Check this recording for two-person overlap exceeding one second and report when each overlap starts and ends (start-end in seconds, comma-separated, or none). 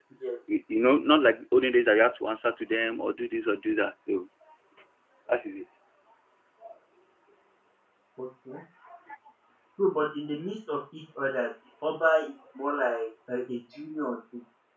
none